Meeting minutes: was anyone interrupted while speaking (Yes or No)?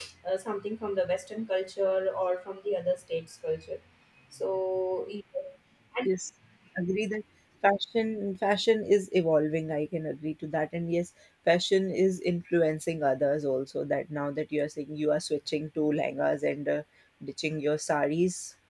No